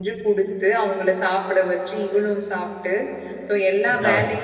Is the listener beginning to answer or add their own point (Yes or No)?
No